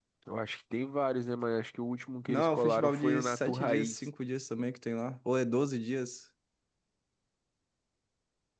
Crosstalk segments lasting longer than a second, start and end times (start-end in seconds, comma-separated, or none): 2.3-4.1